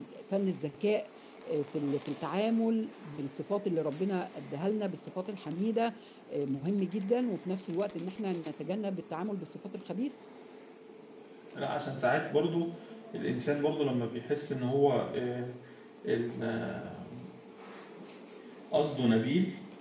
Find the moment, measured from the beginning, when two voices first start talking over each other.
none

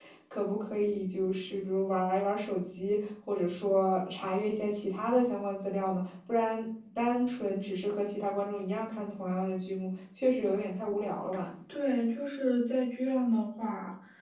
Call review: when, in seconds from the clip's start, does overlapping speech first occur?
none

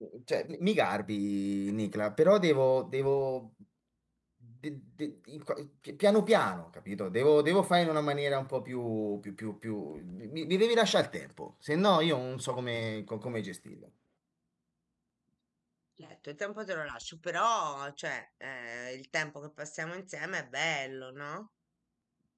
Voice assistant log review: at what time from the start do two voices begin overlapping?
none

